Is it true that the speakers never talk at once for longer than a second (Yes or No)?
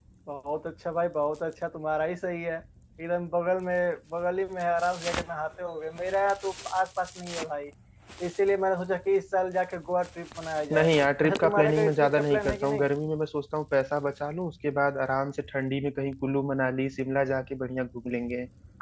No